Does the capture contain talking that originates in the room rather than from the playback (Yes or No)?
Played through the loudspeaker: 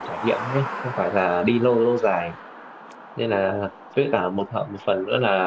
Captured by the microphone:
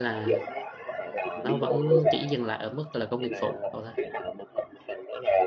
Yes